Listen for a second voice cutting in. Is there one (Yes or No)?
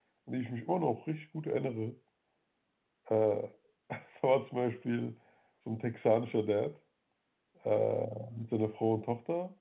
No